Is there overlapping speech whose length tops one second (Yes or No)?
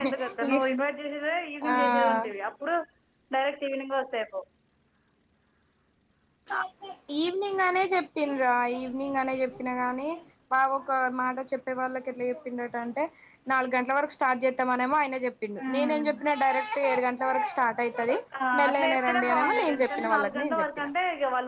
Yes